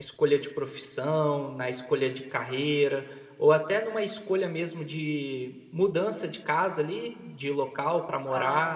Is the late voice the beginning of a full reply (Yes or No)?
Yes